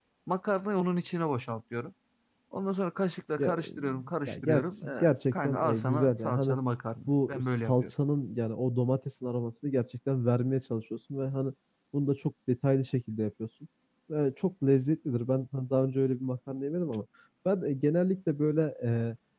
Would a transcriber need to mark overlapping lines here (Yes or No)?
Yes